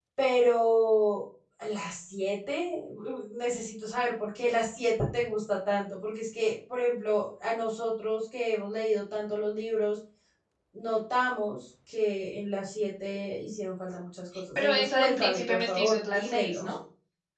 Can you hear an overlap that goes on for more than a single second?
Yes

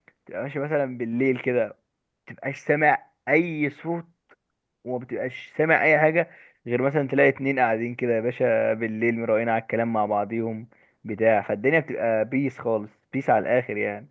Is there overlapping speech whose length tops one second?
No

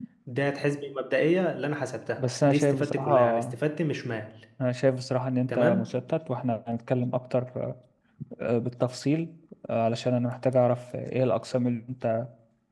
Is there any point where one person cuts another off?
Yes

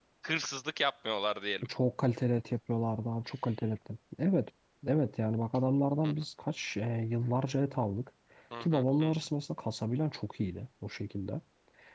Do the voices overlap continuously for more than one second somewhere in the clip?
No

